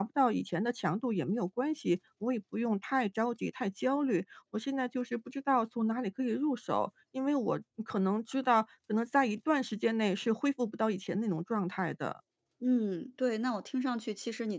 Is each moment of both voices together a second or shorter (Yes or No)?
Yes